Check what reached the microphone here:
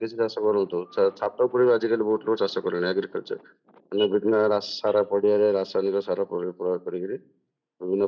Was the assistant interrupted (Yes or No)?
No